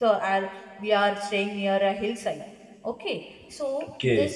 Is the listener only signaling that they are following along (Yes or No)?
Yes